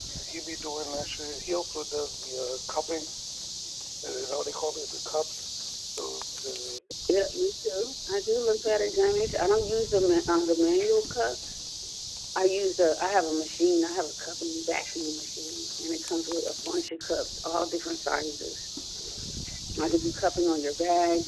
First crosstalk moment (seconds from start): none

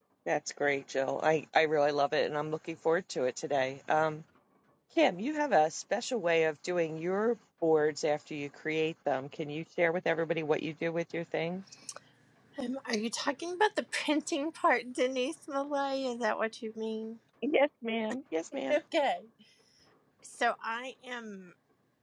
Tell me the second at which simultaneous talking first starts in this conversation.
none

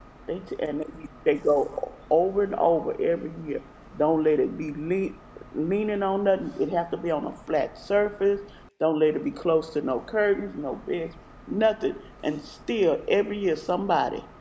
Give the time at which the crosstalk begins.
none

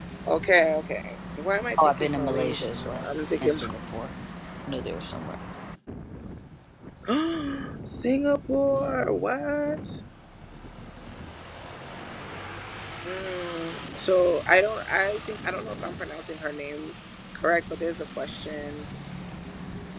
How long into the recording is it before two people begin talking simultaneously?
2.0 s

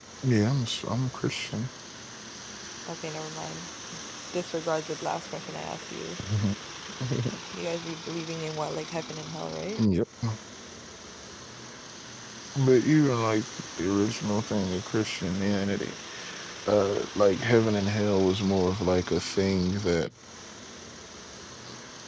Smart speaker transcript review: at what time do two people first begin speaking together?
none

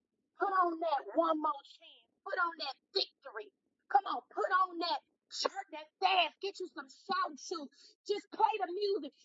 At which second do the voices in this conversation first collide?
none

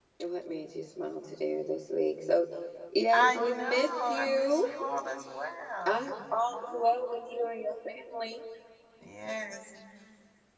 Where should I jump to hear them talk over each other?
3.1 s

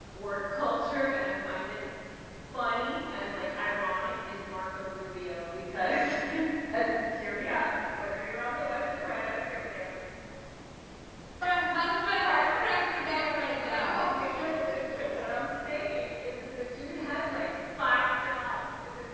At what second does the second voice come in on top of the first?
12.2 s

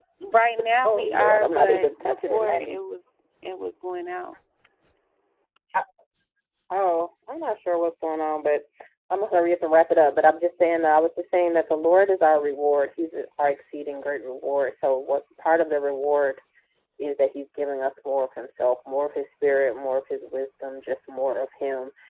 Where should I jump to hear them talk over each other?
0.8 s

